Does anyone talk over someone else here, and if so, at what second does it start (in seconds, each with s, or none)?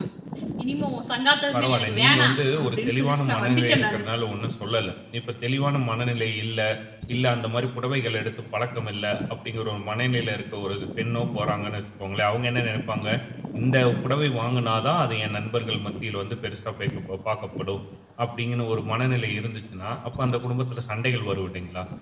1.5 s